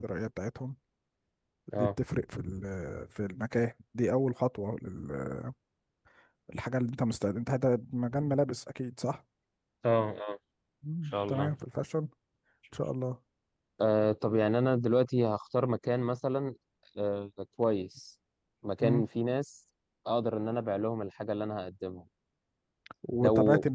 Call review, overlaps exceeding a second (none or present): none